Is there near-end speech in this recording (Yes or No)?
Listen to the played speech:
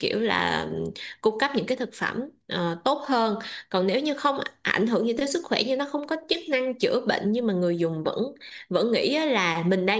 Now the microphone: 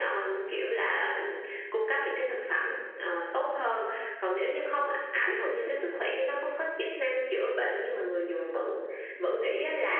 No